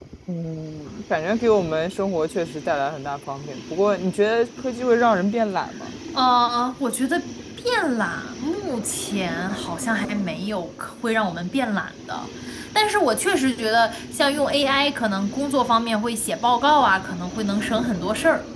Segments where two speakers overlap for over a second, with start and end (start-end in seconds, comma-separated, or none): none